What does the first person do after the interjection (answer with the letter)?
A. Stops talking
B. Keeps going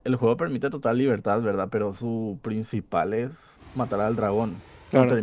B